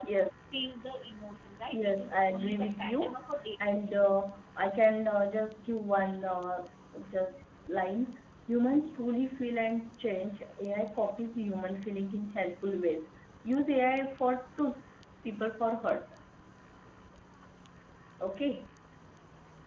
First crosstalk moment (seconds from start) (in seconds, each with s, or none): 1.7 s